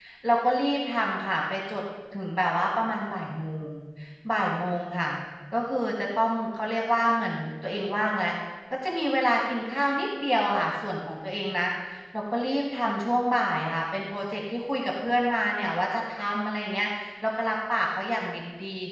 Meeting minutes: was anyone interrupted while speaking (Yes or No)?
No